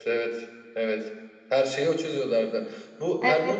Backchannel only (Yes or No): Yes